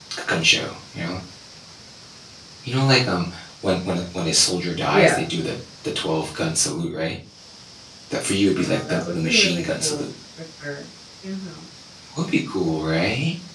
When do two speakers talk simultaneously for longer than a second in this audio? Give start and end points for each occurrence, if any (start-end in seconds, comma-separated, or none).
8.6-10.0